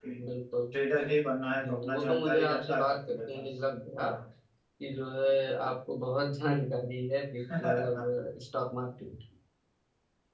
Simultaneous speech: Yes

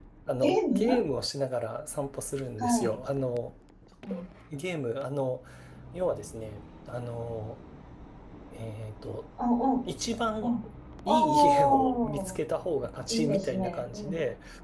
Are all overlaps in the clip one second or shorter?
No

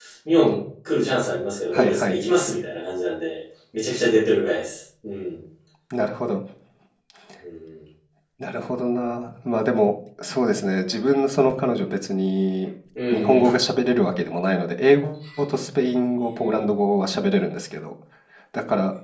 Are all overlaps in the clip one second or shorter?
Yes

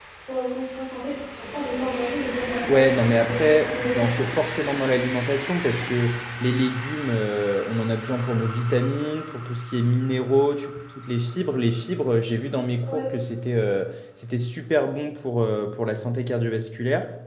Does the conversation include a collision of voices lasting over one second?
Yes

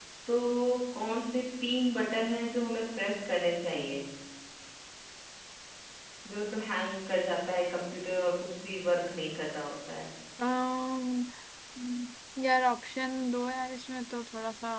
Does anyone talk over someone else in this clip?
No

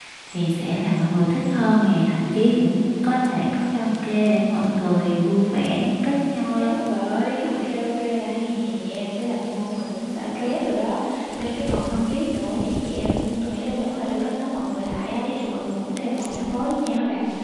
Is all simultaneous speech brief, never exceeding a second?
Yes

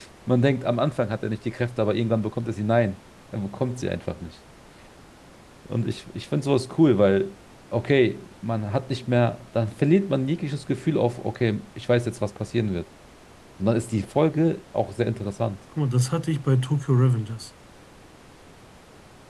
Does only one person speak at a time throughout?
Yes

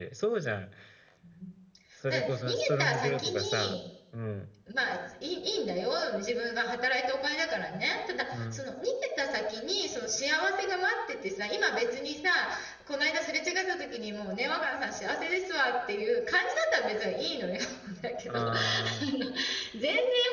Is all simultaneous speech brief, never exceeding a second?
No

